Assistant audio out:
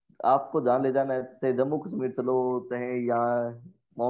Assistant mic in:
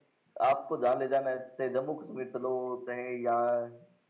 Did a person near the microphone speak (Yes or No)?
No